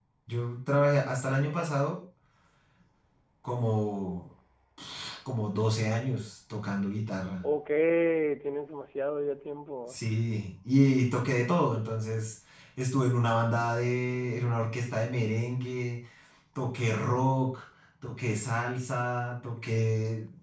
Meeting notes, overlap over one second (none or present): none